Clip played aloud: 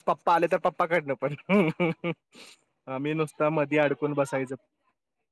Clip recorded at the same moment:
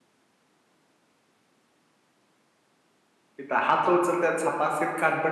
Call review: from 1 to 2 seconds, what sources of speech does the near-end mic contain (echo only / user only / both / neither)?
neither